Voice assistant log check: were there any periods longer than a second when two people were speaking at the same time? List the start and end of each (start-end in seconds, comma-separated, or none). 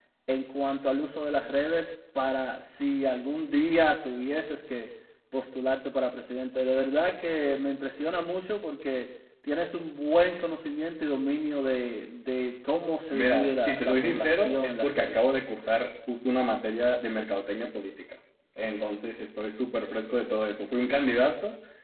13.1-15.2